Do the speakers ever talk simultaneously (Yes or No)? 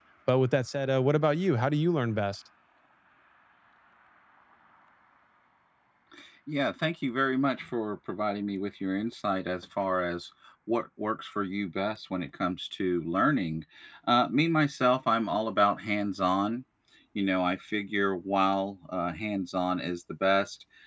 No